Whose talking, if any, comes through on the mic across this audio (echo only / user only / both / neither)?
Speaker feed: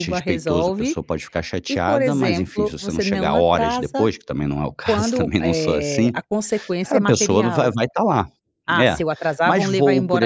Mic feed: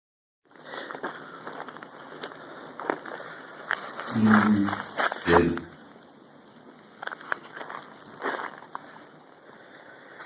user only